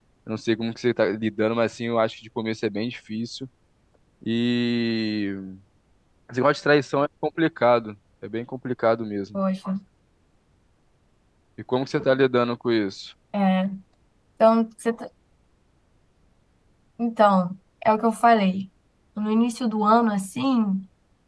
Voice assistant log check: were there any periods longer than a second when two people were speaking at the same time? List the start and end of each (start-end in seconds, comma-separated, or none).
none